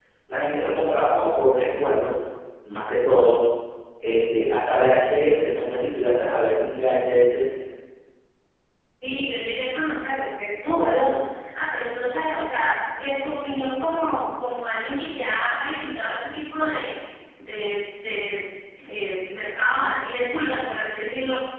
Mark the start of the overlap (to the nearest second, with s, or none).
none